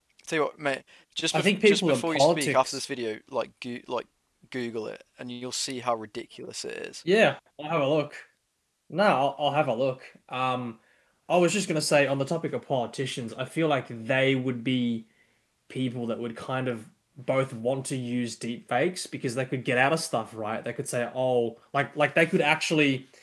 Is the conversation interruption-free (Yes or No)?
No